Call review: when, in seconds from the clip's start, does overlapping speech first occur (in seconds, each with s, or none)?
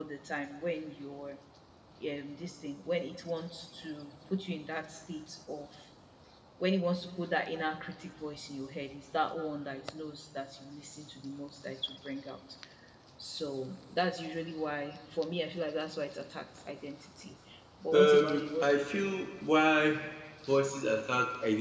17.9 s